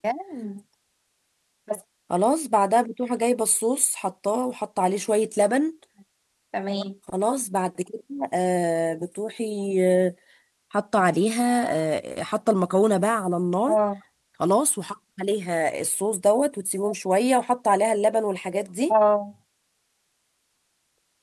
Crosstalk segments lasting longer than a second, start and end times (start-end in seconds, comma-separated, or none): none